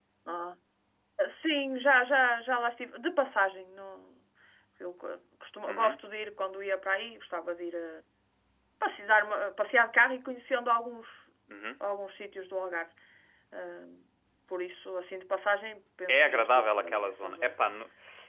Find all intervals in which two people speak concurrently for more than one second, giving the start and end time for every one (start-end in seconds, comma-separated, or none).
16.1-17.6